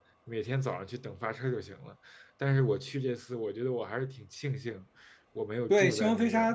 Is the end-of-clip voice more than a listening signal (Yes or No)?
Yes